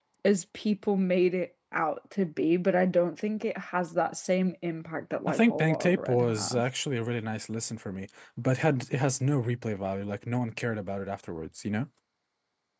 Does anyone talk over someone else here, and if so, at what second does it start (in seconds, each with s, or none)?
5.3 s